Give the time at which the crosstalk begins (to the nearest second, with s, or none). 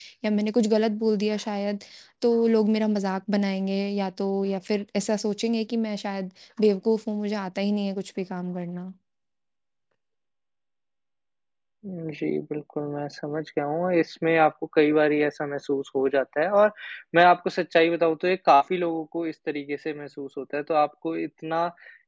none